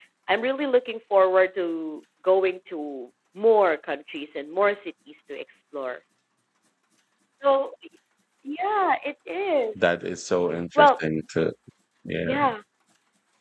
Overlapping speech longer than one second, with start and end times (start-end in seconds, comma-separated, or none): none